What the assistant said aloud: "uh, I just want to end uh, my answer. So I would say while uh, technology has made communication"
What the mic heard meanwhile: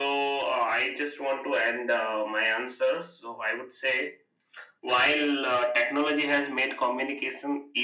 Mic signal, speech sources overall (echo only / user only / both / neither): echo only